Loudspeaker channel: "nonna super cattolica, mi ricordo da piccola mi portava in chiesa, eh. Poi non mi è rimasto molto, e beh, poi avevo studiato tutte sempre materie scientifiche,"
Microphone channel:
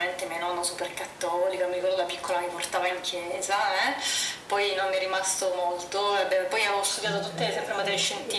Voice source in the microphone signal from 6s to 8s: both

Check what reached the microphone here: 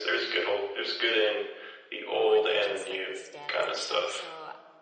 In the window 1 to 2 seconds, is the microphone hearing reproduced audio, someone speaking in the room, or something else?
echo only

